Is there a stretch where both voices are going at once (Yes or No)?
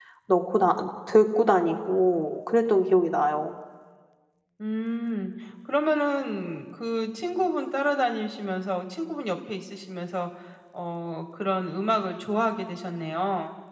No